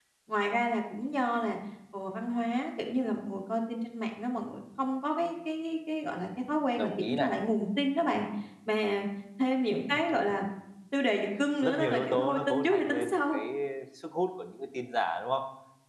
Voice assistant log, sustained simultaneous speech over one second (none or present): present